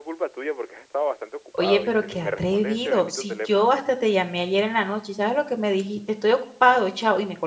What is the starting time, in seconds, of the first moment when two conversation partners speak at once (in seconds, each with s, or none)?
1.5 s